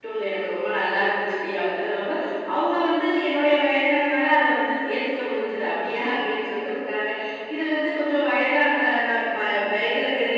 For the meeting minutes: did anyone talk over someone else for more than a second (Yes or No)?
No